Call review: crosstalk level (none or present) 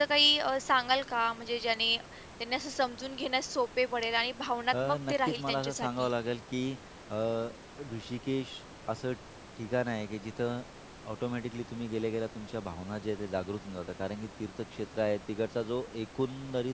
present